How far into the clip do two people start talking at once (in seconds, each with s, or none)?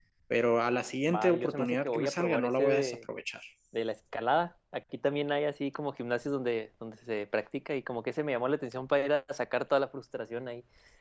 1.1 s